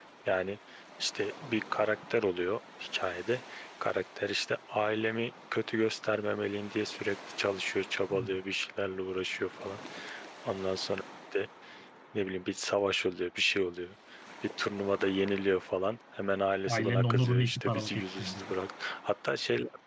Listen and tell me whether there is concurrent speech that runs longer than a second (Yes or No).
Yes